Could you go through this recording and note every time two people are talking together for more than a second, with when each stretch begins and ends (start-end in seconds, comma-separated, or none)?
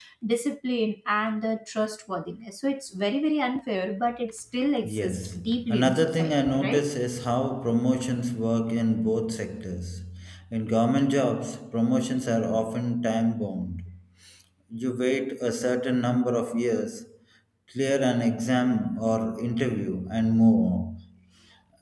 5.0-6.8